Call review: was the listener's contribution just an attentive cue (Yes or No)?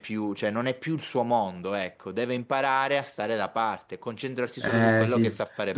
No